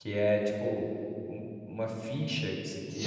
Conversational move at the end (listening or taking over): taking over